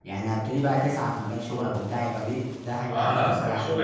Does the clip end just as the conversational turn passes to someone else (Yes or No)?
Yes